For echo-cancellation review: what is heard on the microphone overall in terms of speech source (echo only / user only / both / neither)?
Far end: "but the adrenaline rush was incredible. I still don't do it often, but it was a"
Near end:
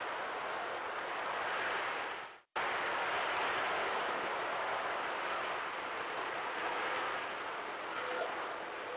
neither